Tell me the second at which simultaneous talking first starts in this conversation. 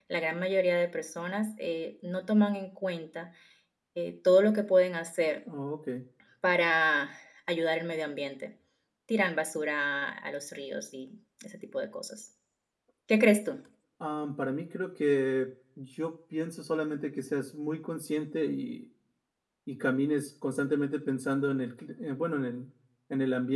none

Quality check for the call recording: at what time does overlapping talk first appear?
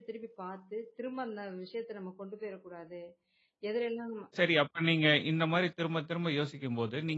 none

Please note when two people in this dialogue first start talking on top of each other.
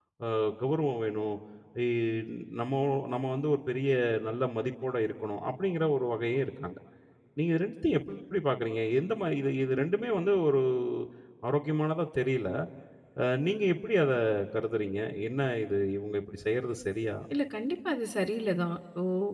none

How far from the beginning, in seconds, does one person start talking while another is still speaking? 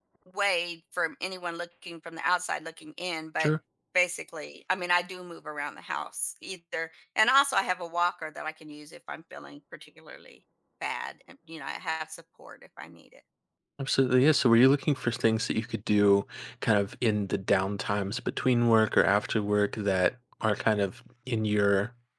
none

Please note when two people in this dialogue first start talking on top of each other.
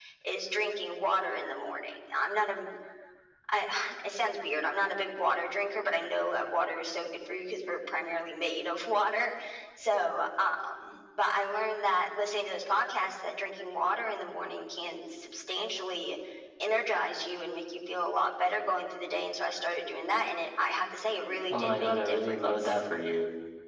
22 s

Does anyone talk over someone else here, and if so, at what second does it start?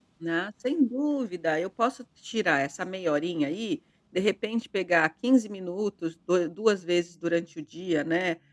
none

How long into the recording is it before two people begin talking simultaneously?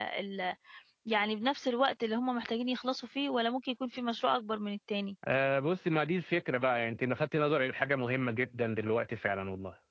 none

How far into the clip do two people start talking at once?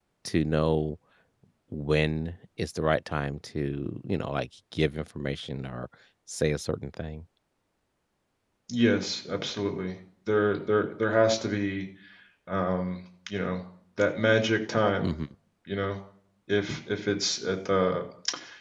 none

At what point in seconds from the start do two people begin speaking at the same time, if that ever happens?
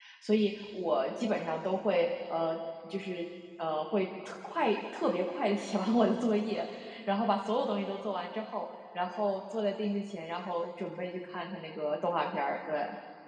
none

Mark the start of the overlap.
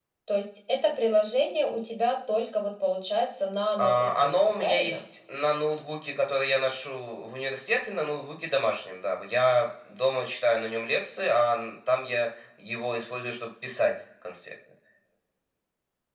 4 s

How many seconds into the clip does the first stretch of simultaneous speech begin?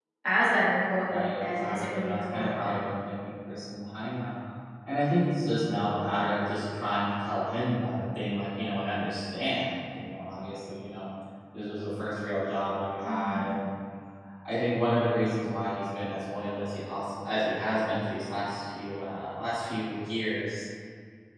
1 s

